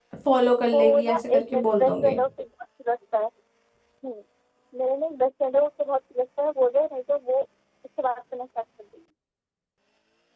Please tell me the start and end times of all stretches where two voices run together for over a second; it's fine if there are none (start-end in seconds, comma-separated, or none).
0.7-2.2